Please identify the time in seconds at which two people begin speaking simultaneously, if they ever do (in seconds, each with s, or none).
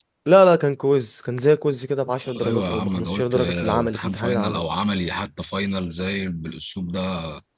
2.2 s